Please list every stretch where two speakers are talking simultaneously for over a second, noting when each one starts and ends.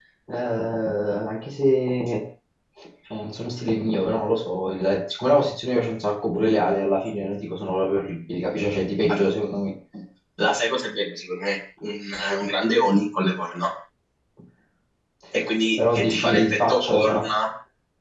15.8-17.3

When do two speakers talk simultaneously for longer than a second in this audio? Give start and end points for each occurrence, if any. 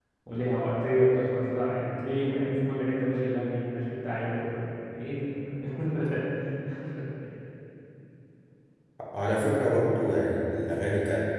none

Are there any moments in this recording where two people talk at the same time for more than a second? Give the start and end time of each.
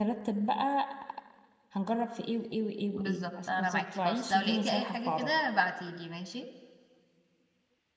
3.0-5.4

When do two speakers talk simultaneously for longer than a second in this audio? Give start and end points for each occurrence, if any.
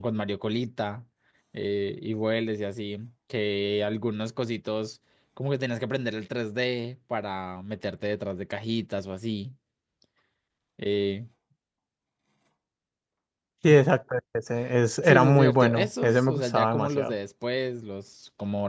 15.0-17.1

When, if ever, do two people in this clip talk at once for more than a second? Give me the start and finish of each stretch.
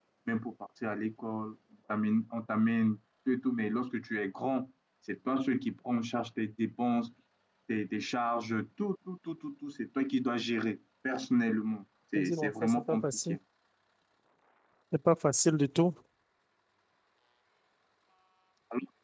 12.2-13.4

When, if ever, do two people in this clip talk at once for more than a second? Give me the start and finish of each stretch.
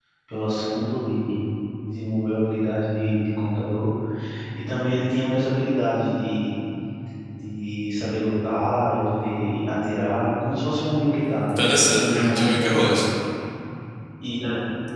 11.6-13.0

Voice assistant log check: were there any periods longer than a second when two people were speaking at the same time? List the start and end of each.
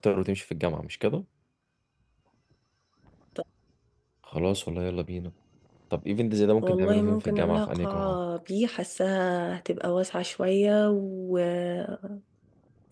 6.6-8.2

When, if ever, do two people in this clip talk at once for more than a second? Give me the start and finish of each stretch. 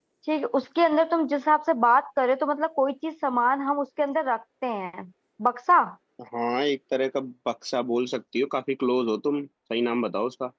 none

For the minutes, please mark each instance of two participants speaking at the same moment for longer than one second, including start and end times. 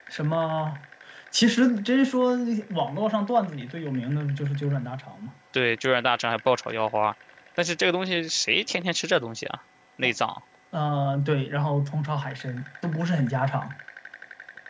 none

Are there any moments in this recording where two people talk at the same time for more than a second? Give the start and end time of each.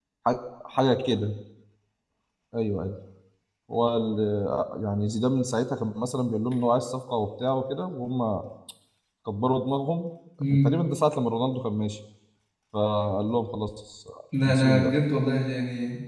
none

